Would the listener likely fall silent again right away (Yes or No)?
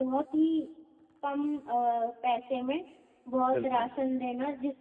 Yes